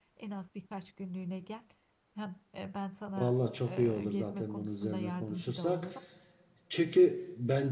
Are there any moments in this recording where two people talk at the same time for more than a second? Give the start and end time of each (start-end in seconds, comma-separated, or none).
3.2-5.9